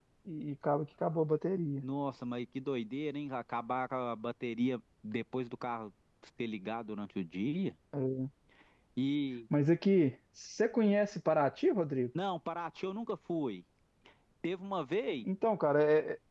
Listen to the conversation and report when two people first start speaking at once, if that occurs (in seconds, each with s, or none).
none